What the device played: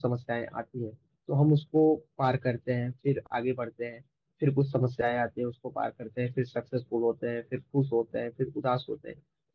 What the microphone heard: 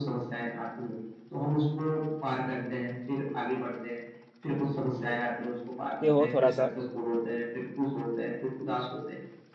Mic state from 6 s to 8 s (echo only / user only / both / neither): both